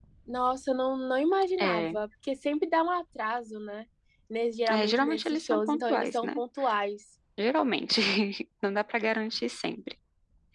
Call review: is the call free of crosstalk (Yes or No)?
No